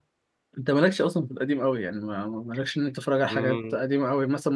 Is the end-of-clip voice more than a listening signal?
No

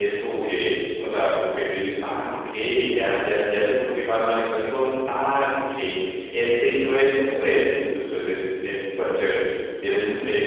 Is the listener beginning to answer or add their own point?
Yes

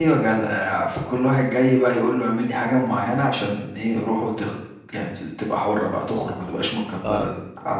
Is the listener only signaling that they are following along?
Yes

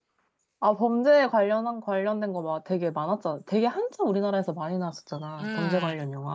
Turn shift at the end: Yes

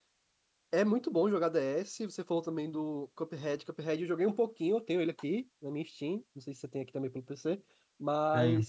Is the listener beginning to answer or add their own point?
No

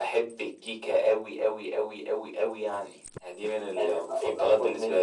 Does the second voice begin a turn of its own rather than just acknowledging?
Yes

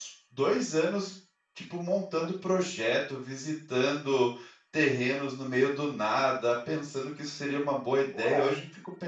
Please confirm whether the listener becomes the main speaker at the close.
No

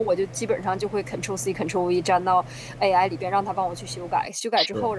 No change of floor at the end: Yes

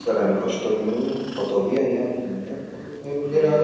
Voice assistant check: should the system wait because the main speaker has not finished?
No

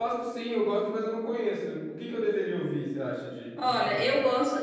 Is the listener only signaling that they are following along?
No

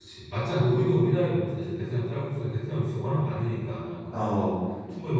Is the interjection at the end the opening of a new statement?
No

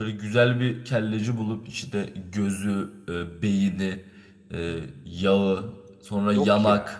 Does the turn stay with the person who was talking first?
Yes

